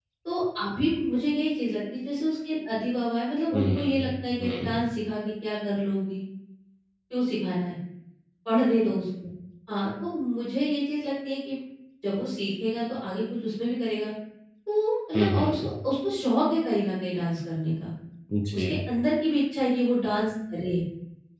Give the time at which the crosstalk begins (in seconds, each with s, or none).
3.5 s